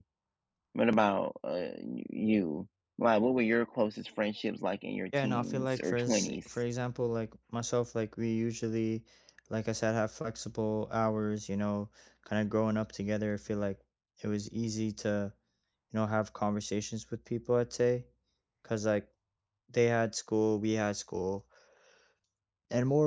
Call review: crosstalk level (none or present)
present